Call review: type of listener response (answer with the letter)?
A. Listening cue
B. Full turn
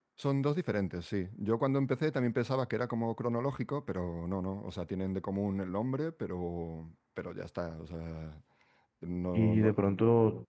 B